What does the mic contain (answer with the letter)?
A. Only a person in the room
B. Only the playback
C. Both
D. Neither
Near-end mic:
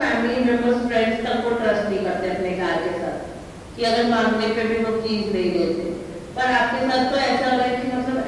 B